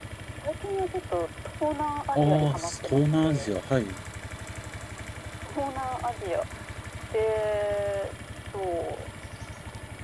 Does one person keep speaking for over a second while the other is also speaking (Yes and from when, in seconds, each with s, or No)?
Yes, from 2.1 s